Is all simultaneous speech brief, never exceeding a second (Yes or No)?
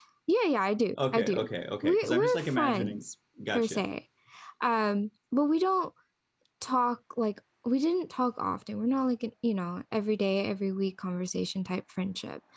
No